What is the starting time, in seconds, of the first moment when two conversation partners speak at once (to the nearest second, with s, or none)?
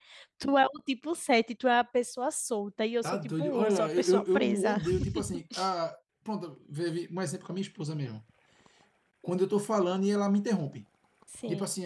3 s